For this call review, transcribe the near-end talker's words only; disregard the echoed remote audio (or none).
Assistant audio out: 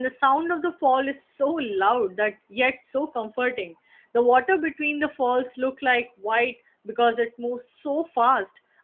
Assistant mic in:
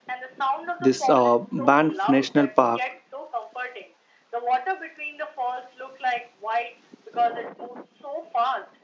this uh, Banff National Park,